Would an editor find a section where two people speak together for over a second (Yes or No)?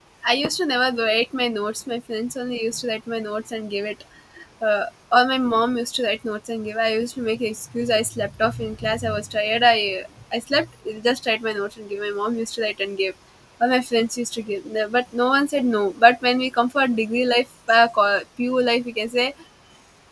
No